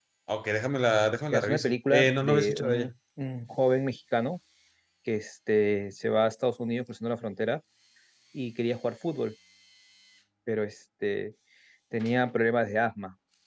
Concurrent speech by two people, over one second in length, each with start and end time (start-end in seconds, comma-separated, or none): 1.3-2.9